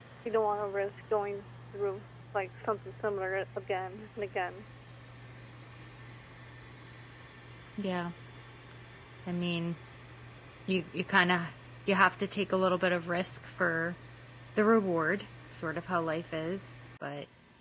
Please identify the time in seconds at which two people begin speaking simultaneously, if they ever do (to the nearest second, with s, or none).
none